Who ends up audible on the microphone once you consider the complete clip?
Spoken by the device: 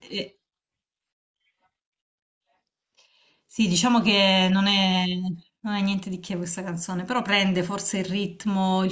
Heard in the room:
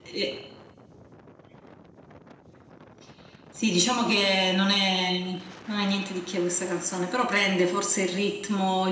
echo only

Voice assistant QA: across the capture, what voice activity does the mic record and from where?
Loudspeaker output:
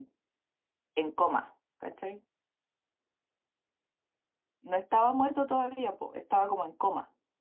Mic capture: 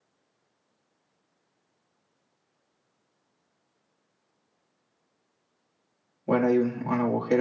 user only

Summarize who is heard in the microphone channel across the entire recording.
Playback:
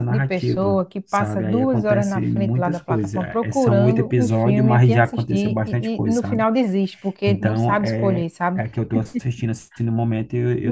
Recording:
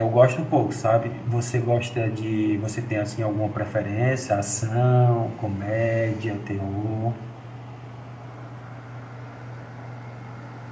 user only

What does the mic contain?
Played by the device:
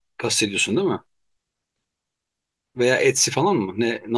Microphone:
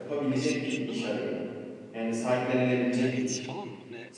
both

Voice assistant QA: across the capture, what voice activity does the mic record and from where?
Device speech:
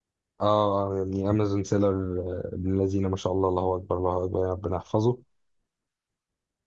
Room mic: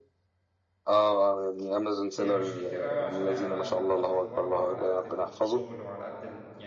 both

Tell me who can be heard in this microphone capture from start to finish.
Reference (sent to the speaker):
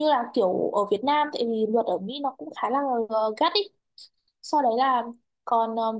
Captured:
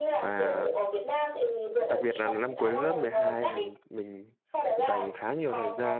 both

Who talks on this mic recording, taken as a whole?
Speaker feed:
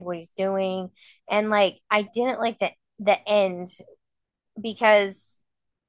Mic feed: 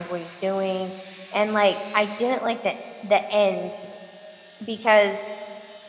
echo only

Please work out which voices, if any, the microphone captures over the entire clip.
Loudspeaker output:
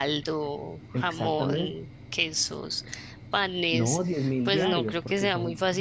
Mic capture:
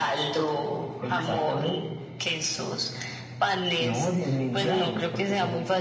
echo only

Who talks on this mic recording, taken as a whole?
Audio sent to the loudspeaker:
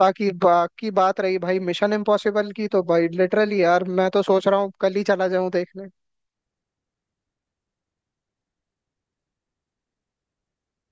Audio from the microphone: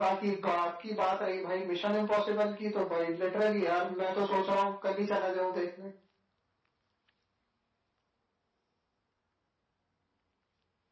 echo only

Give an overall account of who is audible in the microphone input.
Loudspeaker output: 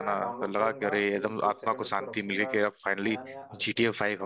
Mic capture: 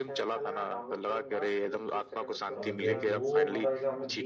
both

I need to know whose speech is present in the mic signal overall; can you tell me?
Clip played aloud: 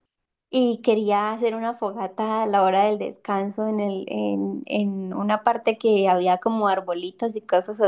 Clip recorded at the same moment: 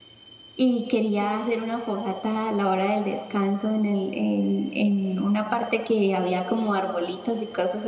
echo only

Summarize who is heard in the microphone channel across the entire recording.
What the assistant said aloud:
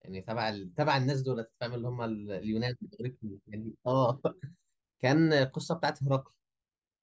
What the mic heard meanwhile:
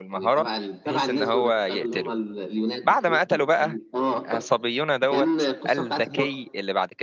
both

